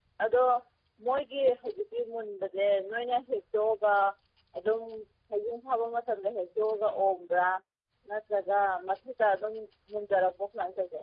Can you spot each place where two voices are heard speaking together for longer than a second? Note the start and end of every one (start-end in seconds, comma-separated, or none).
none